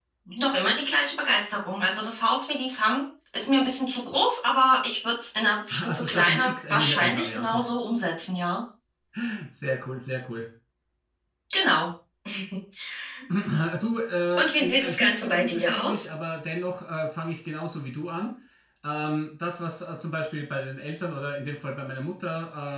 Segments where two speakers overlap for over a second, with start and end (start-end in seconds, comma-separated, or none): 5.8-7.7, 14.4-16.1